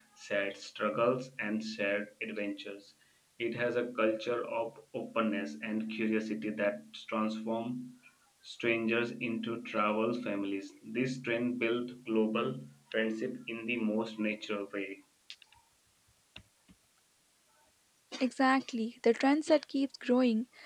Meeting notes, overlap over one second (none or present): none